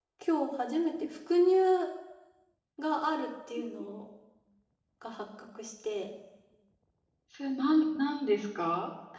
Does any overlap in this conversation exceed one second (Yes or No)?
No